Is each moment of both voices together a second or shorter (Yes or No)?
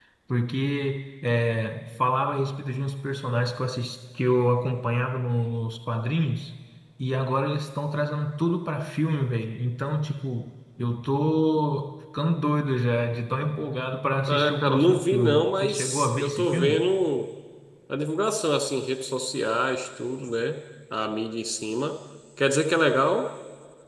No